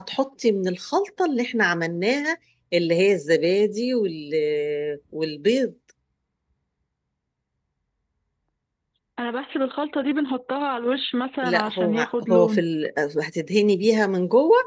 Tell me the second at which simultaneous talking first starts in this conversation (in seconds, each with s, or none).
11.4 s